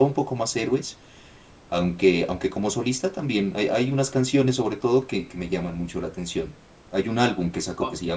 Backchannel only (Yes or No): Yes